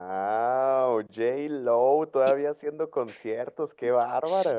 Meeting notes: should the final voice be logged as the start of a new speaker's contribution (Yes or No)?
Yes